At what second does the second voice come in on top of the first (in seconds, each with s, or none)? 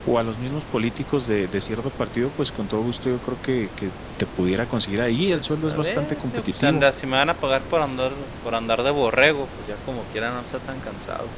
5.3 s